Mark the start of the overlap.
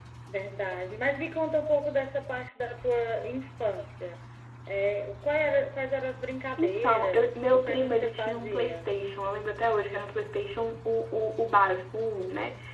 6.6 s

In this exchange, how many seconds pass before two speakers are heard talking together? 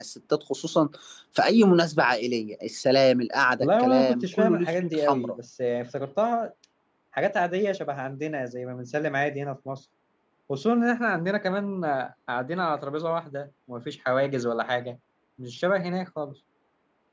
3.6 s

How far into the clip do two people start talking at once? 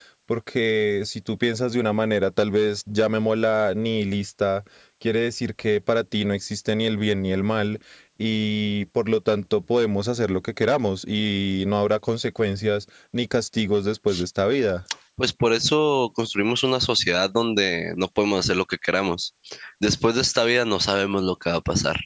none

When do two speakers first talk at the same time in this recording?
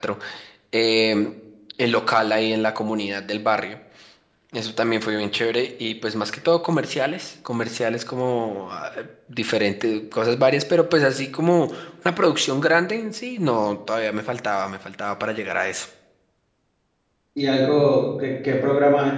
none

